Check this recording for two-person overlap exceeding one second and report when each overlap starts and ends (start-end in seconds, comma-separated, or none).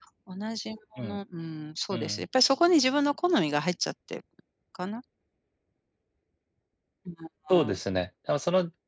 none